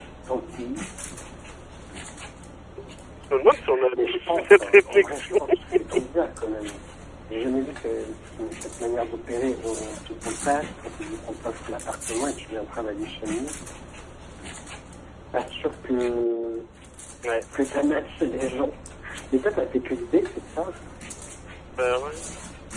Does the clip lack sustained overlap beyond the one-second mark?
No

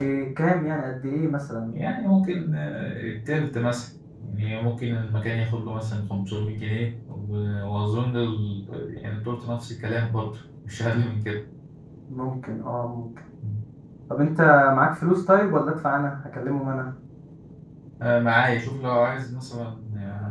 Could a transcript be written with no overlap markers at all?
Yes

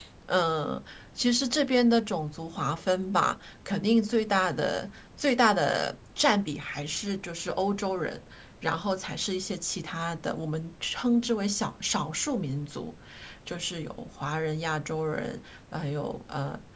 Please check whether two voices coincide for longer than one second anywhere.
No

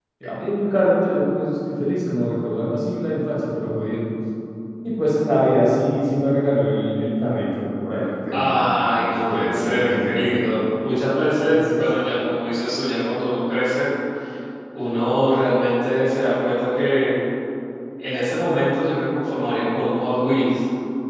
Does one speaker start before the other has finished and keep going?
Yes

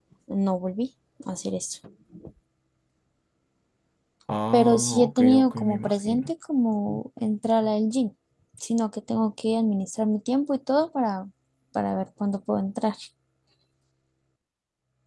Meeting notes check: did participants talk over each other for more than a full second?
Yes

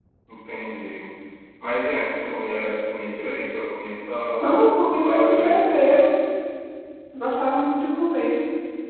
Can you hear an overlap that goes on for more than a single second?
Yes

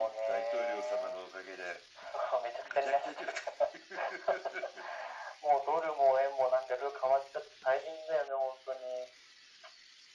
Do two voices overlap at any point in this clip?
Yes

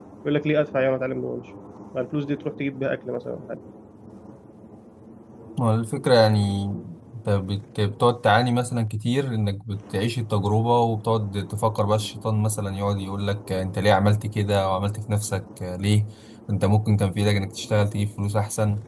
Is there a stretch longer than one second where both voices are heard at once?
No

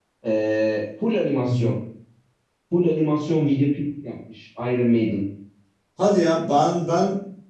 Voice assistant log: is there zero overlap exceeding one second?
Yes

